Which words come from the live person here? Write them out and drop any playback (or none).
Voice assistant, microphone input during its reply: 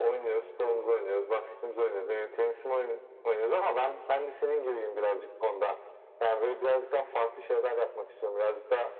none